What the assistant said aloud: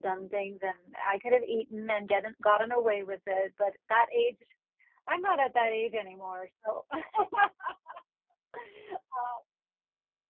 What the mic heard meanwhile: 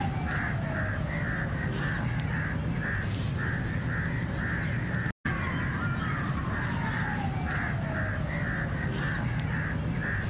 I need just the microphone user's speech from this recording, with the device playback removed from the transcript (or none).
none